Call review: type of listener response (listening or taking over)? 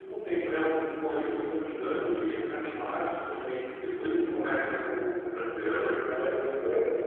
taking over